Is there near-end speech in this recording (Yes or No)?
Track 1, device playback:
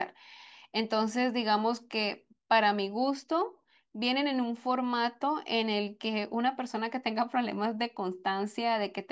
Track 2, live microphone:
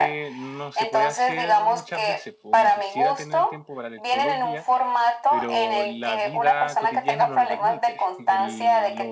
Yes